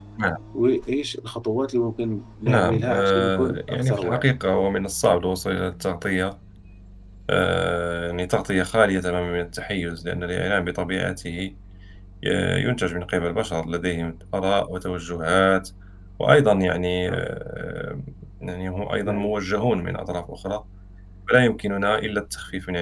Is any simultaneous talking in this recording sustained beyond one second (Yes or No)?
Yes